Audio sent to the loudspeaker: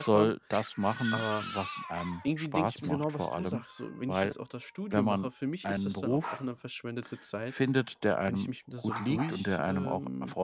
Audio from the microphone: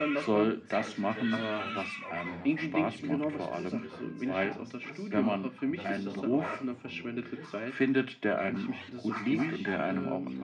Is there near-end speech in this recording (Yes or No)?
Yes